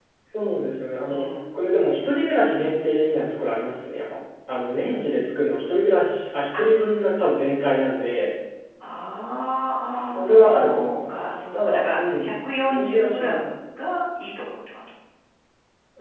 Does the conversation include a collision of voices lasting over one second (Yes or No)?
Yes